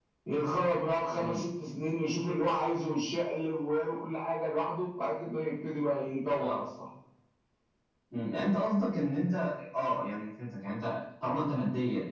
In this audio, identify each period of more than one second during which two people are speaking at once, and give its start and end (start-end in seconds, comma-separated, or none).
none